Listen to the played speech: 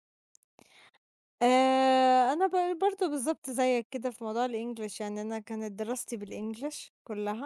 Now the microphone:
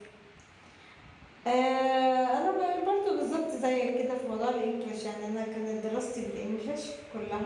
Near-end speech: none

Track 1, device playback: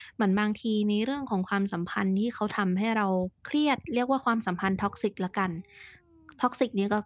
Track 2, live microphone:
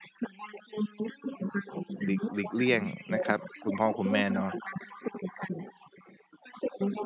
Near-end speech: present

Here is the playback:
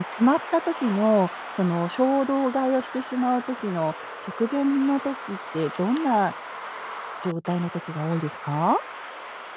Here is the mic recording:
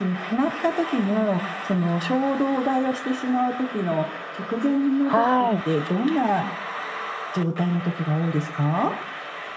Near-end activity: present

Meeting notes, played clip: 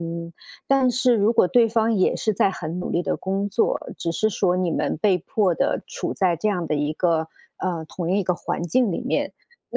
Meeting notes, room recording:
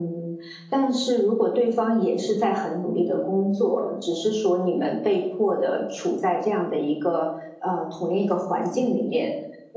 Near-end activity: none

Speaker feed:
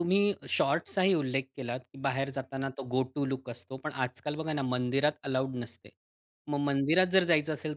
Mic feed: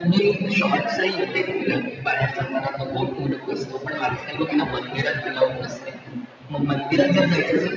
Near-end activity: none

